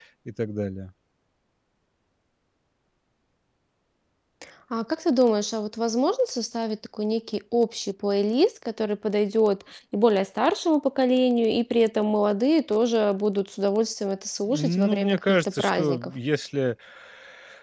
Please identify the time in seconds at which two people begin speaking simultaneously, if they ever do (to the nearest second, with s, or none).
14 s